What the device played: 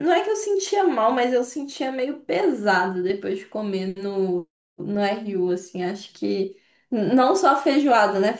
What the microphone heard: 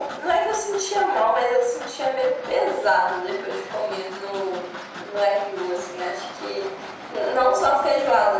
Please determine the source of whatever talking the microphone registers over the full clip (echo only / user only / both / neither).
echo only